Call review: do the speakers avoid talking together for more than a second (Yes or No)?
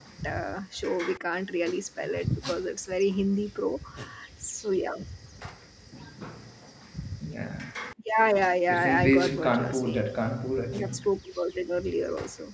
No